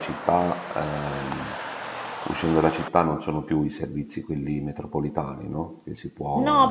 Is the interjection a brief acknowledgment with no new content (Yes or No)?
No